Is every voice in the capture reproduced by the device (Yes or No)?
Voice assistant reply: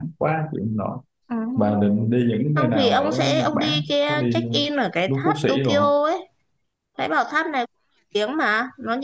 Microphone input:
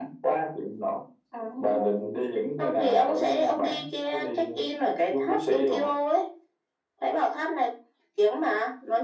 Yes